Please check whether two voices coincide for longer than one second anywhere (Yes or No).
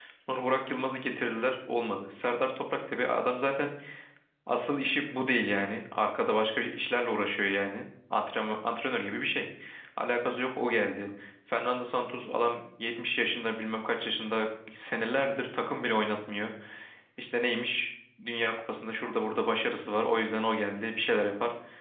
No